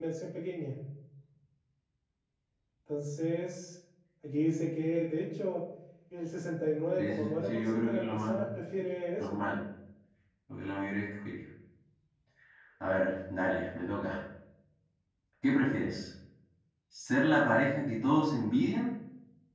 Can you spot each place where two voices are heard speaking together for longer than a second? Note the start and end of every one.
7.0-8.5

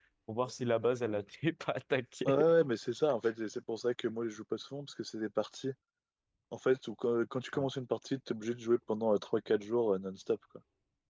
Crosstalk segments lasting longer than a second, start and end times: none

